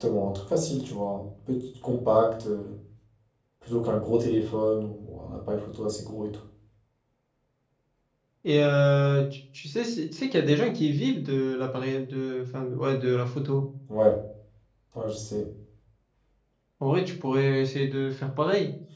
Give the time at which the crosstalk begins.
none

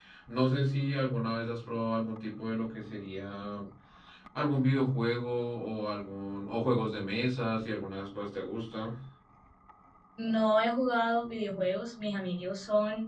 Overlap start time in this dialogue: none

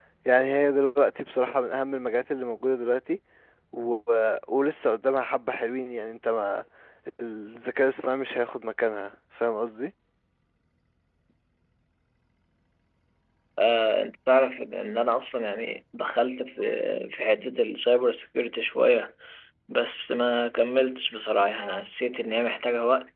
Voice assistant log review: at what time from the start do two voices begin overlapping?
none

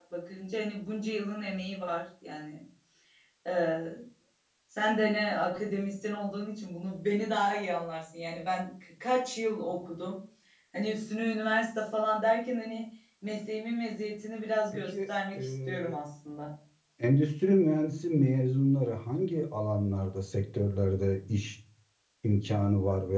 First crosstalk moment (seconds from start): 14.7 s

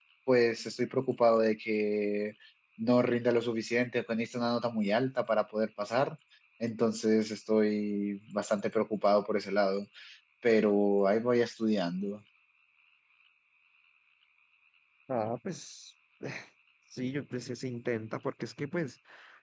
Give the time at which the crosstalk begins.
none

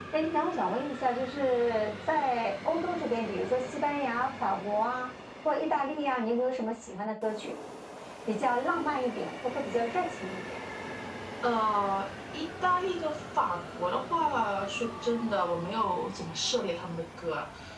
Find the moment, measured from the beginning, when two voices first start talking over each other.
none

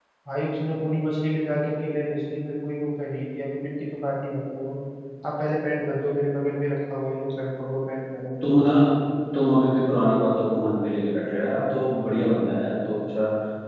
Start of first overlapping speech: none

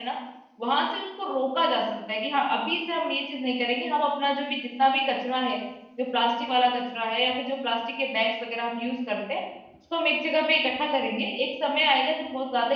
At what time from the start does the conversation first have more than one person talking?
none

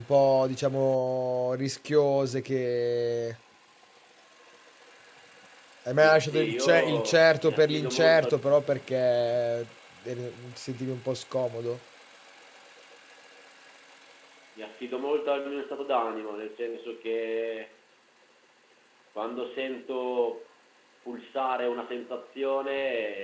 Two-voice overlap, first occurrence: 6.1 s

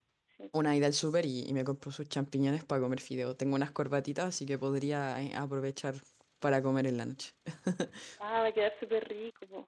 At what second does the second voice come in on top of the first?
none

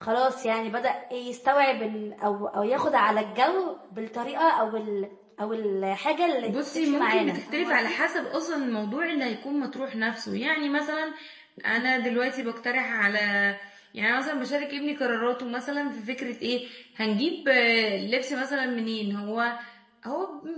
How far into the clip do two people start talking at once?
6.4 s

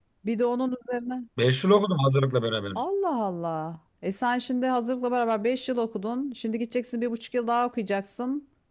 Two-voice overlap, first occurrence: none

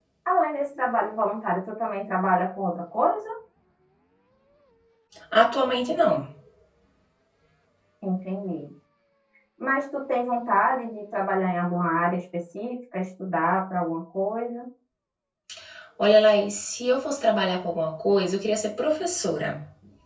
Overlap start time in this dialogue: none

